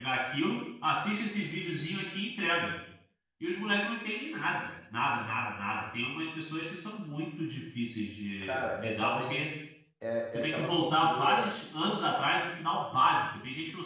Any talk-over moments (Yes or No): Yes